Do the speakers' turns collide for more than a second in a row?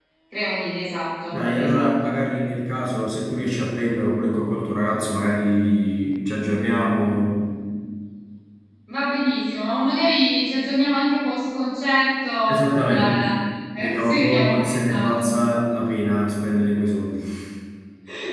Yes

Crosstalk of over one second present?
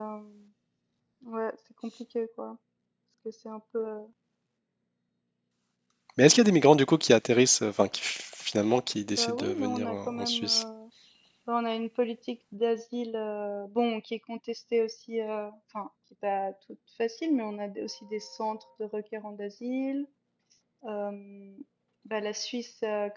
Yes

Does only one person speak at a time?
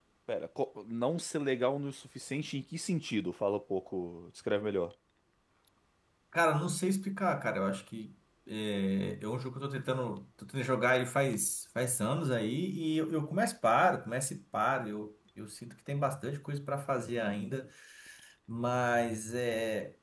Yes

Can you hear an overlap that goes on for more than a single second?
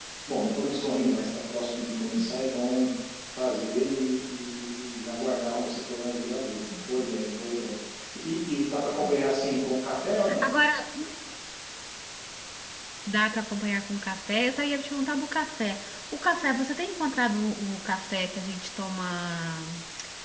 No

